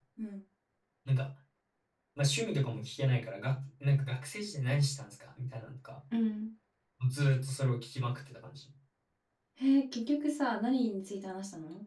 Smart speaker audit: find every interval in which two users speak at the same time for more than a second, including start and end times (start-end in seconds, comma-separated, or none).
none